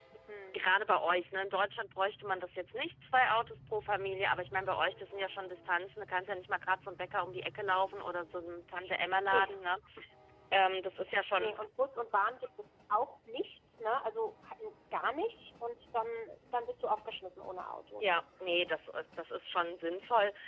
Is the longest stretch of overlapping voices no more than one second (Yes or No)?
Yes